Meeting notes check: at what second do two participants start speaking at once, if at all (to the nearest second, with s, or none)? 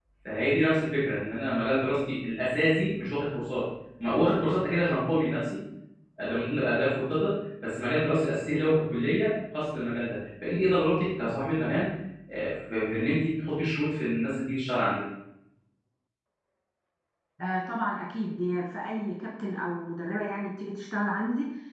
none